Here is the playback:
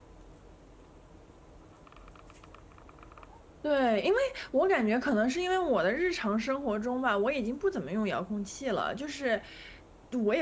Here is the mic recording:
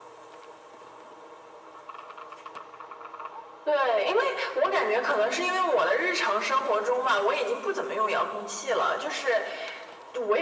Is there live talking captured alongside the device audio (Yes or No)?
No